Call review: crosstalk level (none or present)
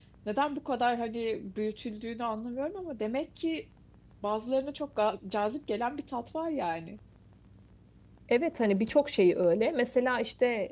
none